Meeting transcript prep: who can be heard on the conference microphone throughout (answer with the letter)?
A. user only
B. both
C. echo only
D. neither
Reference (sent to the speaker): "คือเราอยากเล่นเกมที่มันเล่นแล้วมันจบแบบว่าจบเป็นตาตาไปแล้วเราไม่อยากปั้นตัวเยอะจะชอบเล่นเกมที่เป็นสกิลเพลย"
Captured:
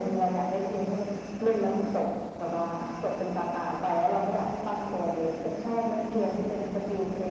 C